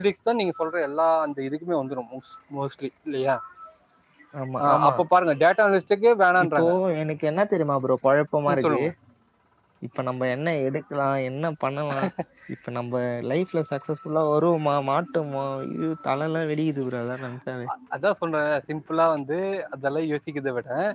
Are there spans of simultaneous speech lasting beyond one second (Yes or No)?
No